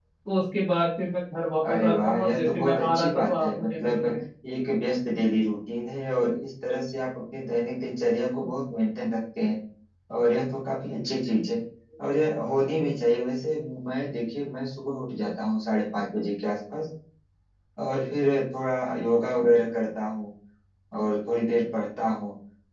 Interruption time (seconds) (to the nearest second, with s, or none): 2 s